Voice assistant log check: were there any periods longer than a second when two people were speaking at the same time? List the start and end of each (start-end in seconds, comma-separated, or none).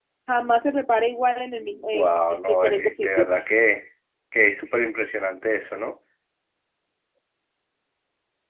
1.7-3.3